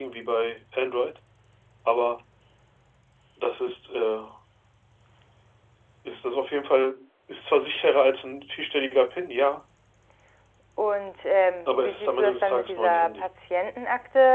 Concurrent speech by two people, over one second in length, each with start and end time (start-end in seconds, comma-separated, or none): 11.7-13.3